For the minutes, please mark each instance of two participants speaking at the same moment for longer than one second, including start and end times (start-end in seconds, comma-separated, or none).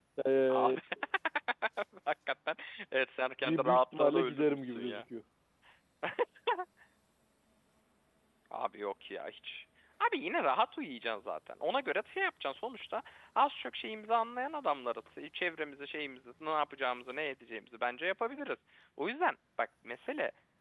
3.4-5.0